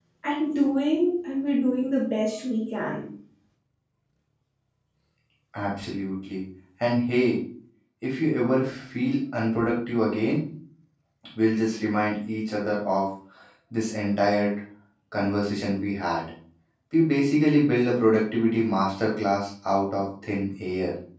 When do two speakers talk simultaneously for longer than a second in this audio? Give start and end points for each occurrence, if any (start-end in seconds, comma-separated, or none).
none